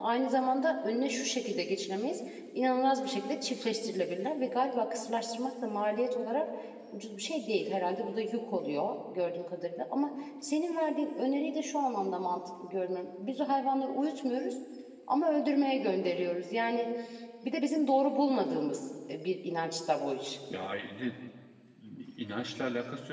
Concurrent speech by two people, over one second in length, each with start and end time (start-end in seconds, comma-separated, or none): none